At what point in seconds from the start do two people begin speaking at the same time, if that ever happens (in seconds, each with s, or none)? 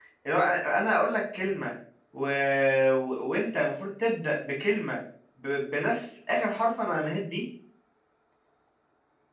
none